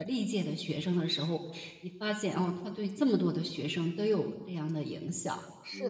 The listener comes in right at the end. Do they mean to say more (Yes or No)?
Yes